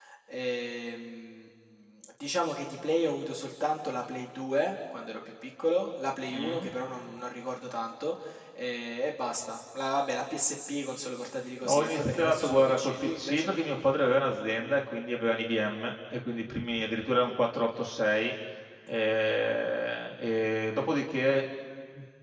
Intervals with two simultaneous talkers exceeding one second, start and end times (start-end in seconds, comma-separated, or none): 11.7-13.6